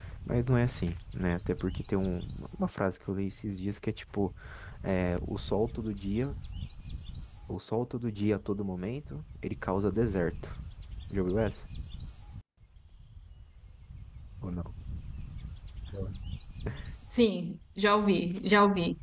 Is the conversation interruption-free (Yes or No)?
Yes